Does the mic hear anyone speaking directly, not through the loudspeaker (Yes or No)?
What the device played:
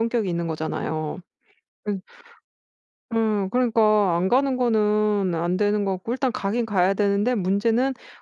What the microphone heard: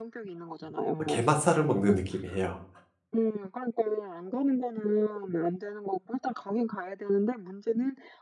Yes